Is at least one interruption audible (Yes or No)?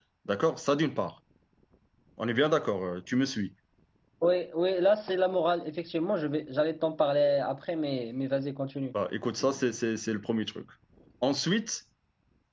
No